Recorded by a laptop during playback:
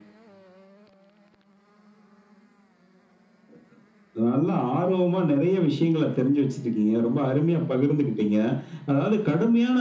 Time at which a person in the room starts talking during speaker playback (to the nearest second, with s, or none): none